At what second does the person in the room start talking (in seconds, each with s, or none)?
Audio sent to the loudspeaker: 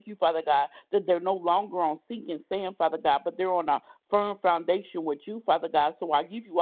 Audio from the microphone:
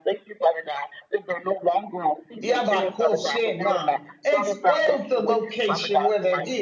2.4 s